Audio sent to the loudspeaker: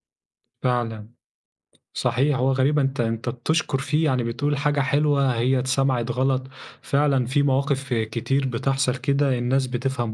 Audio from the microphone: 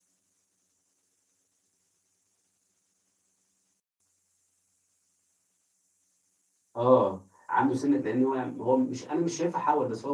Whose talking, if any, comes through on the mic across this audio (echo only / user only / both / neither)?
user only